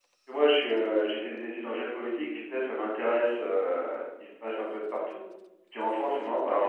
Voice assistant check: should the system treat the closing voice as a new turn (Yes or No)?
No